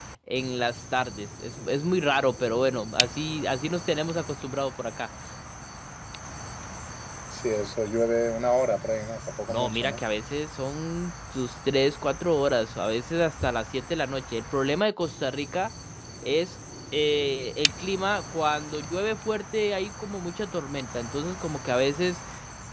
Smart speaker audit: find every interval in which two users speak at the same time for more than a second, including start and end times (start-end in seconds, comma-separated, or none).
none